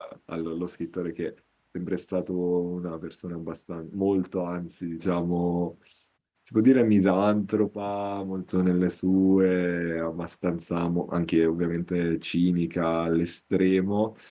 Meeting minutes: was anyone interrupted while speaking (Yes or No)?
No